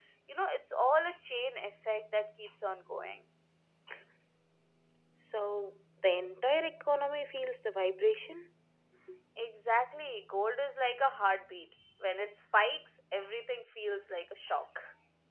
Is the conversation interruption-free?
Yes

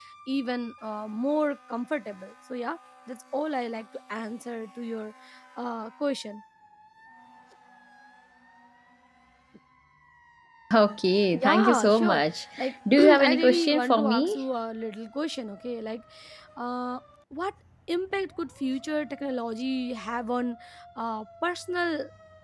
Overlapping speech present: Yes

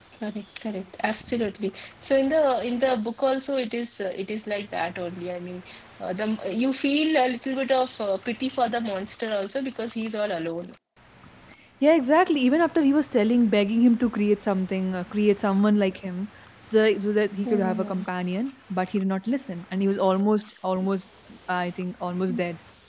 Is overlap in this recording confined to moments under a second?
Yes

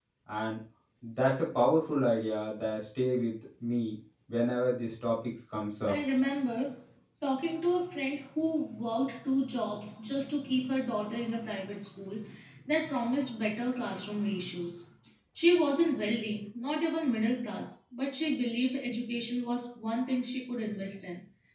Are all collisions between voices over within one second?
Yes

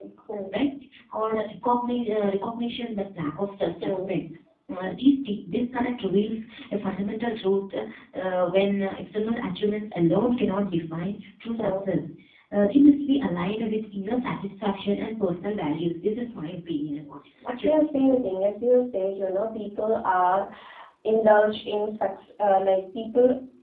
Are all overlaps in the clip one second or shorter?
Yes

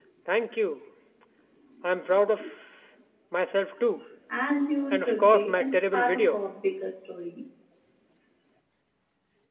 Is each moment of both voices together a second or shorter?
No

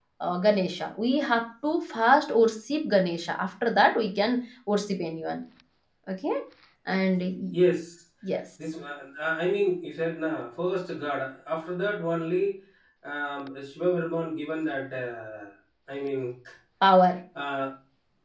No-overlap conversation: Yes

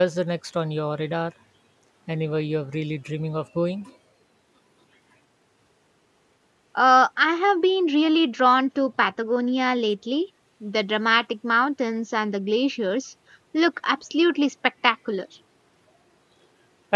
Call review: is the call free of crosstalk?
Yes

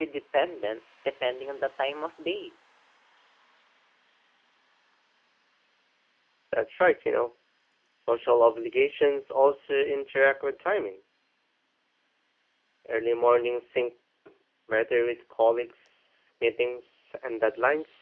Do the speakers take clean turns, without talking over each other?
Yes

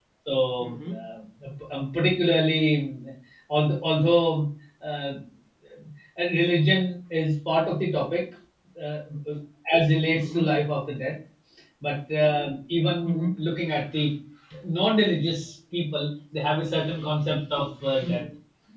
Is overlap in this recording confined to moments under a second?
Yes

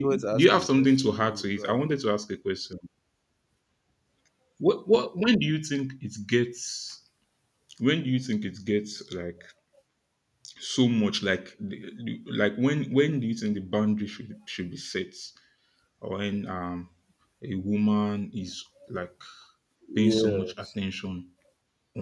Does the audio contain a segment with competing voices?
Yes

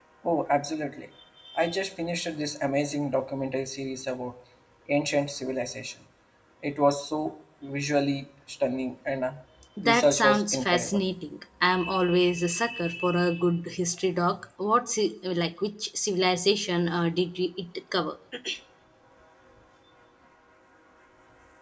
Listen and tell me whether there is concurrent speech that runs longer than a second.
Yes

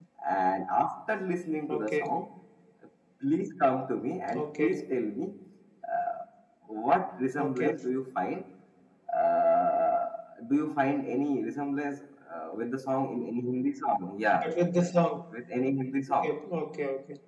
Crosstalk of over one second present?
No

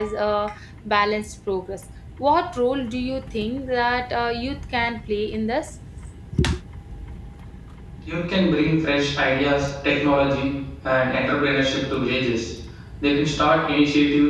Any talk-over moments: No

